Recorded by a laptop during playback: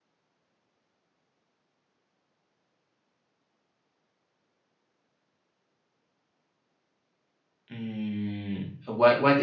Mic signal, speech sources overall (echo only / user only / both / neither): user only